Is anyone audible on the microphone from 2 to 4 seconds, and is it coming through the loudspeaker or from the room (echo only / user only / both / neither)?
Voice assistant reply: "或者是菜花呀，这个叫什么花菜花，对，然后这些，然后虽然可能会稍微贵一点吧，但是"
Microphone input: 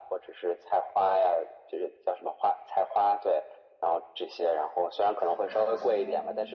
echo only